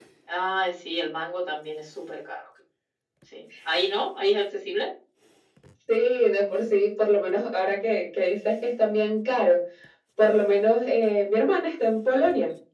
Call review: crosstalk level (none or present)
none